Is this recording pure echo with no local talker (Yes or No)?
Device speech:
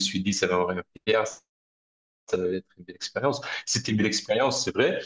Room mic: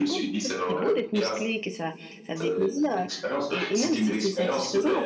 No